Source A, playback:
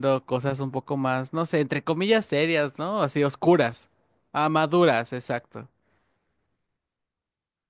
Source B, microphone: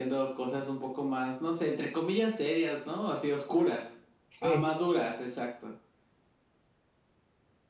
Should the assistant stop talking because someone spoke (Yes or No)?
Yes